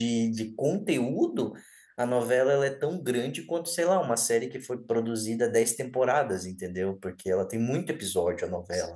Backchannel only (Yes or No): No